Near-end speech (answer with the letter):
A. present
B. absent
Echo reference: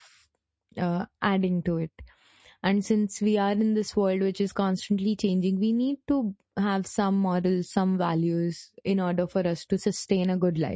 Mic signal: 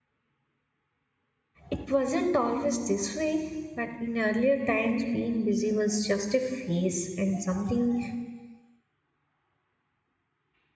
A